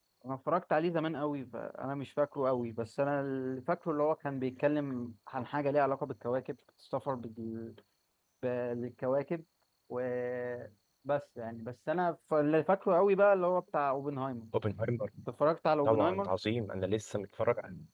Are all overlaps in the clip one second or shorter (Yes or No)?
Yes